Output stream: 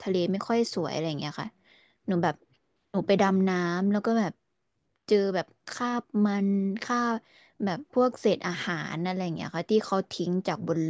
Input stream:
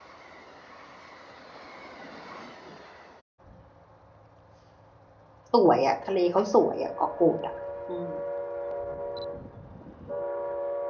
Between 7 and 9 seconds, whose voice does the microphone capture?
user only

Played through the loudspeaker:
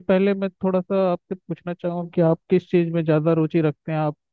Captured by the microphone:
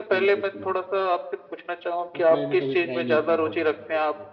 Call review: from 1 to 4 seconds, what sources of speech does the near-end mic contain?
both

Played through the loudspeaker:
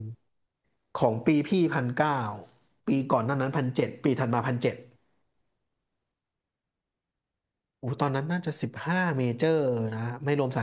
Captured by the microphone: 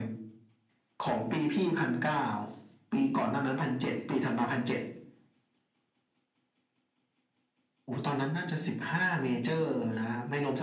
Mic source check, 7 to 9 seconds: echo only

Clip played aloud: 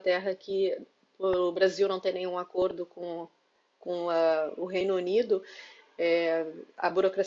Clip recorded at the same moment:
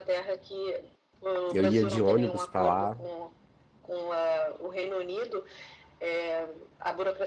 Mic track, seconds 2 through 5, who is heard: both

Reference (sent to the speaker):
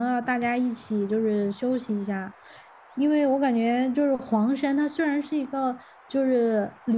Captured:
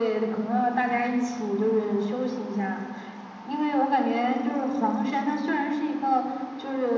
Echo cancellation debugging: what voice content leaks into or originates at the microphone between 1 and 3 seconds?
echo only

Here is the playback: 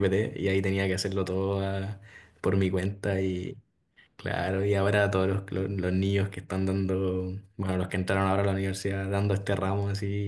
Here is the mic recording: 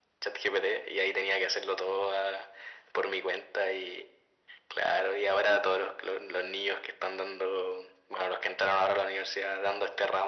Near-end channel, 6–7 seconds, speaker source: echo only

